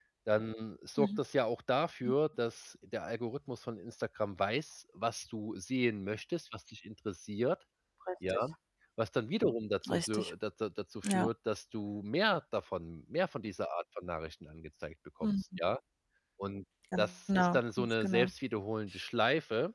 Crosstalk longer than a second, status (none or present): present